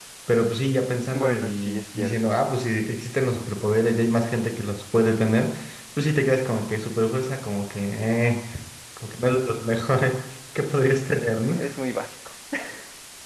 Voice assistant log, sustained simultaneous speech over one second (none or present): present